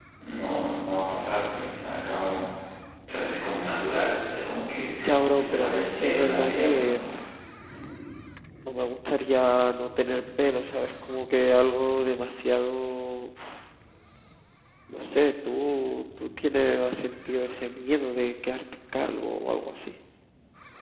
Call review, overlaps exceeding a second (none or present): present